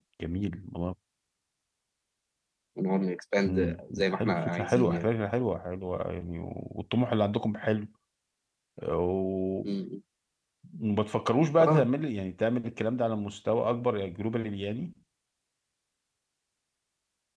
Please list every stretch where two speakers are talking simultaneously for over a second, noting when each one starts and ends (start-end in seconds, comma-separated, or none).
3.5-5.0